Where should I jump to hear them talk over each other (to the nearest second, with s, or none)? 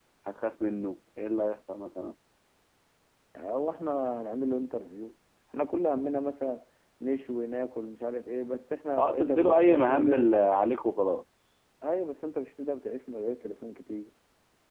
9 s